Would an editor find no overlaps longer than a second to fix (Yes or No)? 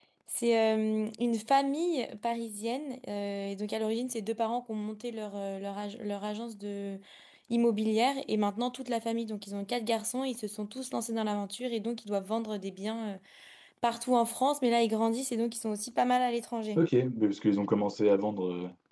Yes